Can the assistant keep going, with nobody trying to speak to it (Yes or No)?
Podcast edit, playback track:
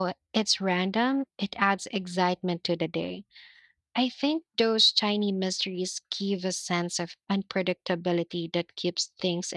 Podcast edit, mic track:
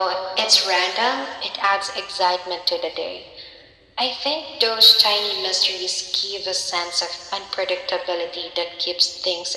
Yes